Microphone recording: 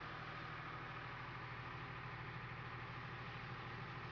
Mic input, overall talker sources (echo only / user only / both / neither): neither